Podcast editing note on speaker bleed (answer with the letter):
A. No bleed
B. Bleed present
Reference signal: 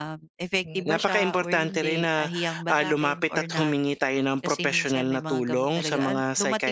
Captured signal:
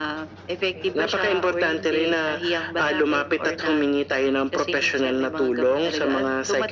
B